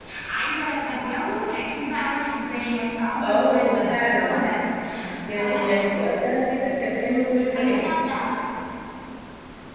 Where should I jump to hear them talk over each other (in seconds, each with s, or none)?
3.2 s